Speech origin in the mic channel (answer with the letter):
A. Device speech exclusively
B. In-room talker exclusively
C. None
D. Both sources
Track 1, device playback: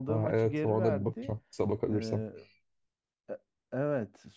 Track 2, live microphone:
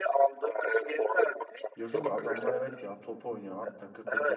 D